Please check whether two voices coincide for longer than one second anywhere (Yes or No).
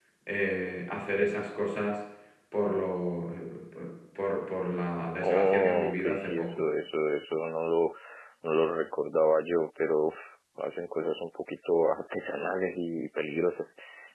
Yes